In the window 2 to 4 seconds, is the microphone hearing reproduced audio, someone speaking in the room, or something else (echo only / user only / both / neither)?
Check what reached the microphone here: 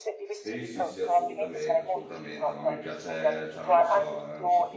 both